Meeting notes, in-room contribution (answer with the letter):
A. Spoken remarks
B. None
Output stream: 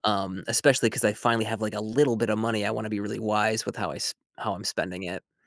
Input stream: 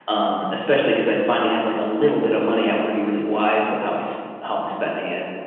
B